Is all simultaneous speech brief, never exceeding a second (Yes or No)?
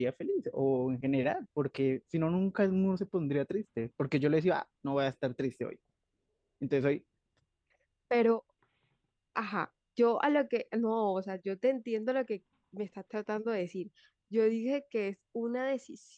Yes